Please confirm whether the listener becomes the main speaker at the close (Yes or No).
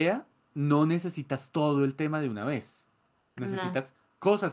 No